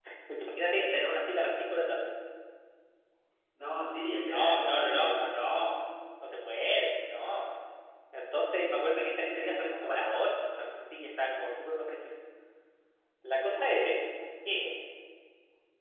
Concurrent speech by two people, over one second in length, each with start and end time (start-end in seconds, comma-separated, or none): 4.3-5.7